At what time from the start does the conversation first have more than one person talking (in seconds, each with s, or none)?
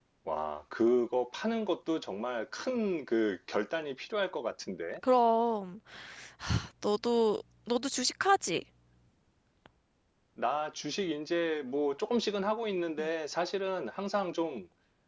none